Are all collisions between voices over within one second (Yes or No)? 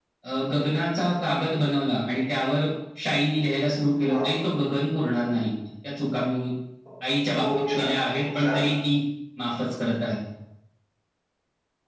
No